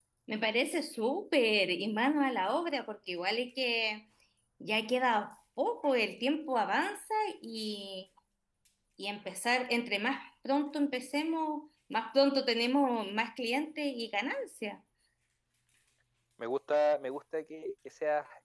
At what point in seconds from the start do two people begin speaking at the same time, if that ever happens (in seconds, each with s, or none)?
none